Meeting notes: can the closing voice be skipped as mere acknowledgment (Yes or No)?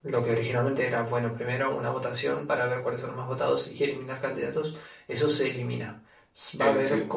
Yes